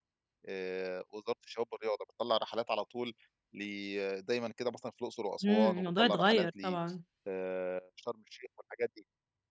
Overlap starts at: 5 s

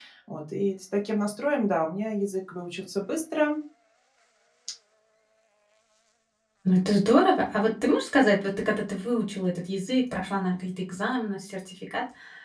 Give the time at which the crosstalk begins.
none

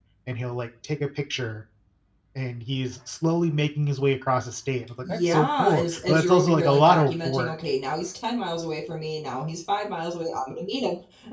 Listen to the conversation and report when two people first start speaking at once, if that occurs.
5 s

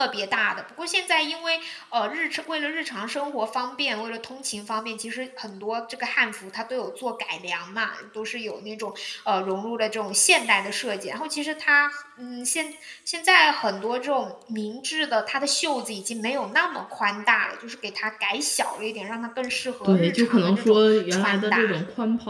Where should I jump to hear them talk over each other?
20 s

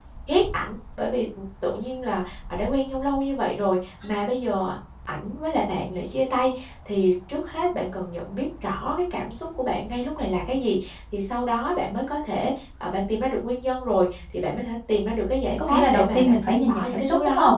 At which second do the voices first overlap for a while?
15 s

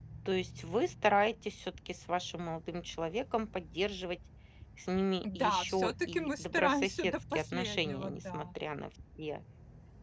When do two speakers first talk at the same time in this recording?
5 s

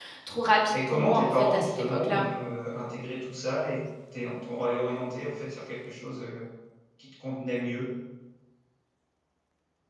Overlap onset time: 1 s

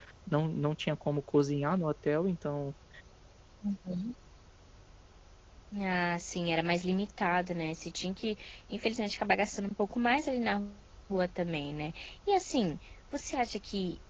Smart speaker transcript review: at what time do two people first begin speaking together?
none

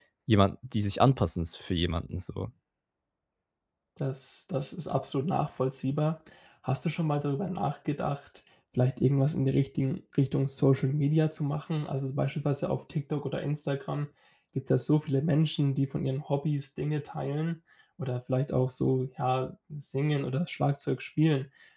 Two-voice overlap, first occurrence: none

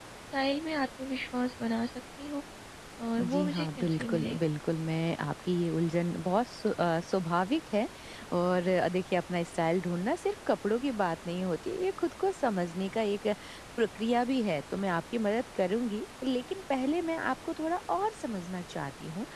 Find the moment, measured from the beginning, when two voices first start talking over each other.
3 s

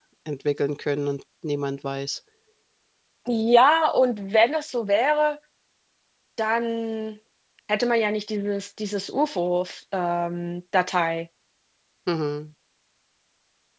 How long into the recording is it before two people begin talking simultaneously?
none

